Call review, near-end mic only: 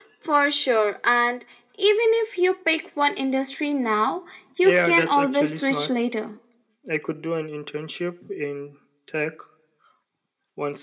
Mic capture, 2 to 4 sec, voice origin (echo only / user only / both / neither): echo only